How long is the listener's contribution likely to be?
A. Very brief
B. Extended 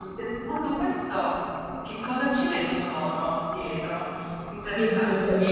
B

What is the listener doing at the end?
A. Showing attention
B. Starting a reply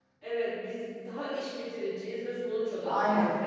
A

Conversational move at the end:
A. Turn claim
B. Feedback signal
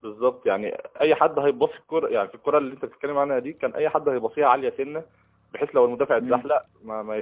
B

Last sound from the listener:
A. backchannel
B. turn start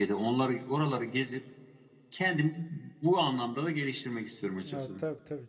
B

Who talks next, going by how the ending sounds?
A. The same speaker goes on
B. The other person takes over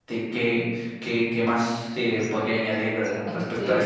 B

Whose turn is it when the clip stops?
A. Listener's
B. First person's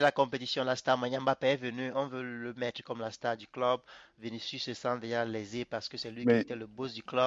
B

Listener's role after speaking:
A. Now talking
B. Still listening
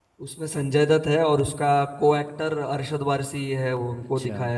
A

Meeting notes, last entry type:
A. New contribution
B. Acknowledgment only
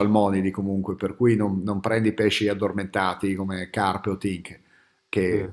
B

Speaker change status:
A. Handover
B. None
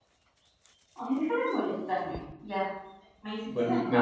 A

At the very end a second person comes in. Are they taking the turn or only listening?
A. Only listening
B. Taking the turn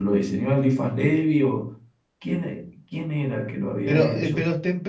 B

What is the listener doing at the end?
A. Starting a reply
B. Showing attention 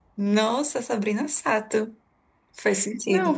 A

